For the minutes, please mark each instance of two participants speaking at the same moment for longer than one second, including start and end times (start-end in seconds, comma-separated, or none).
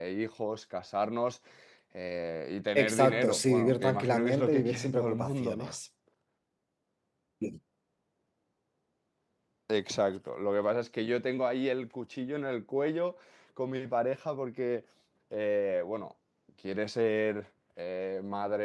2.8-5.7